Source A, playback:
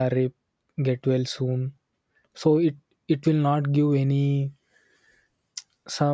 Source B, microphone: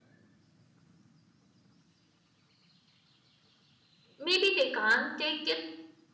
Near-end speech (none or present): present